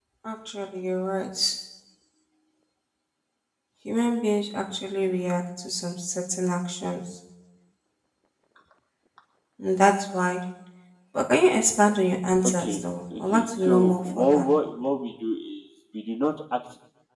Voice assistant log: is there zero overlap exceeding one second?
No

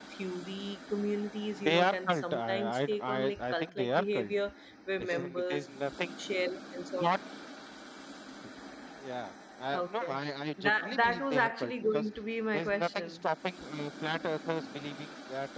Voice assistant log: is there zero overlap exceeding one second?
No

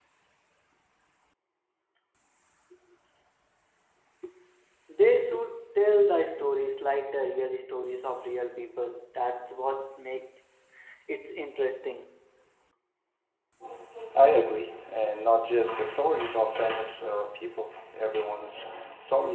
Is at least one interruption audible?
No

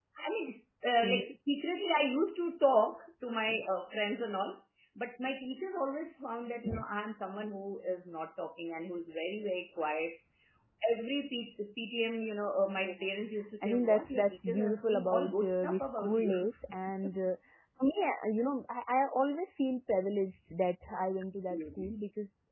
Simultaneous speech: Yes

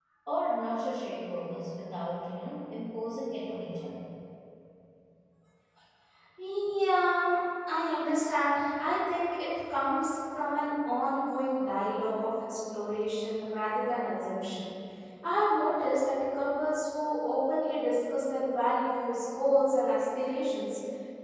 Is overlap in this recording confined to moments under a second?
Yes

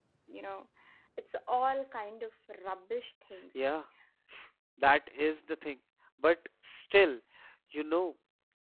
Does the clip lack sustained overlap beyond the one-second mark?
Yes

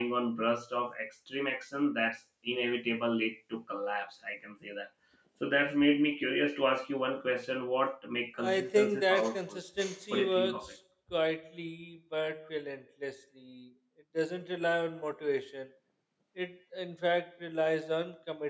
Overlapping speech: Yes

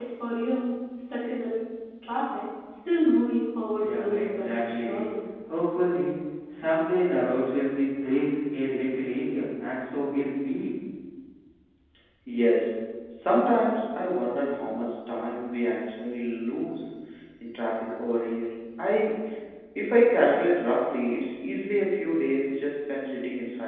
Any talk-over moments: Yes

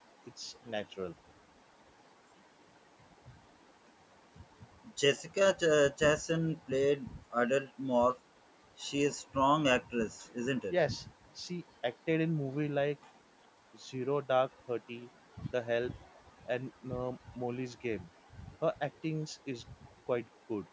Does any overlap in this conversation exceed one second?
No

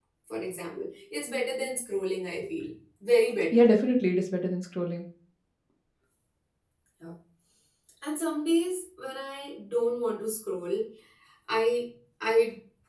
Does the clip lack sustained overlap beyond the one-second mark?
Yes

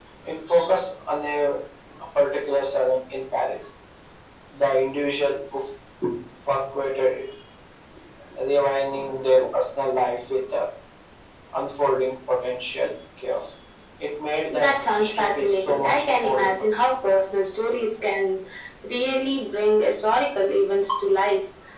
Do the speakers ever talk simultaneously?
Yes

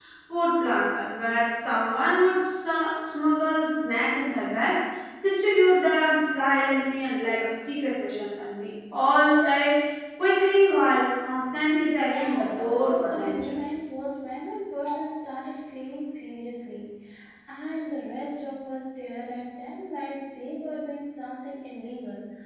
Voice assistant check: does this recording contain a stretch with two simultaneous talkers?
Yes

